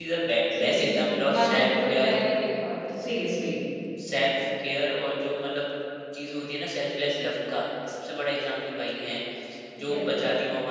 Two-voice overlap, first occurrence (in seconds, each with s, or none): 0.6 s